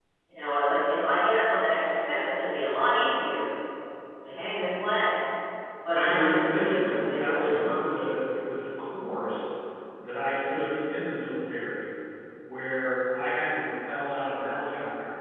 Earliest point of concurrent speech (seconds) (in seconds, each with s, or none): 5.9 s